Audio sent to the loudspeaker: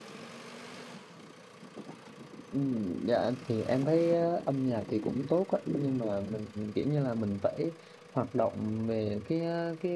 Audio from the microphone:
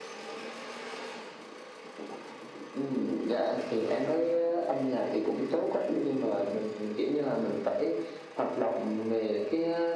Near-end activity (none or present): none